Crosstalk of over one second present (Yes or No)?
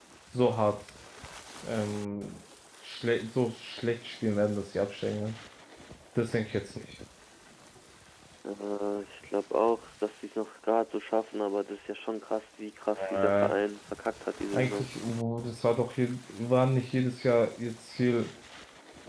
No